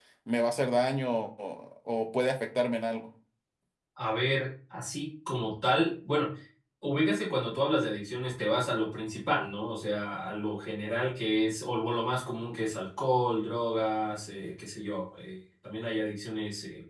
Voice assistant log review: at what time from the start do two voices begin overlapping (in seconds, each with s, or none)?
none